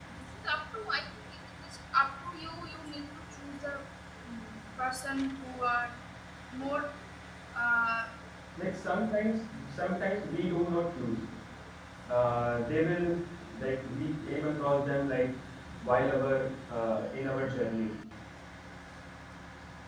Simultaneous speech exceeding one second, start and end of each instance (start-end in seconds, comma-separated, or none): none